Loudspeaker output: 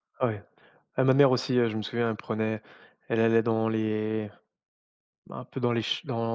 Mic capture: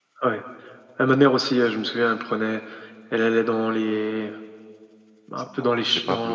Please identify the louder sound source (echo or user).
echo